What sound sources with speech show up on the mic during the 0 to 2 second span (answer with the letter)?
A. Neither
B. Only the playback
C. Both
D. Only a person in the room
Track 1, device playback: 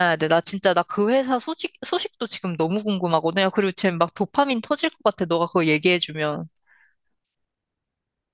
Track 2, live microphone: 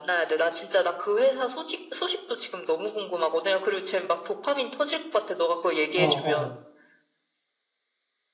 B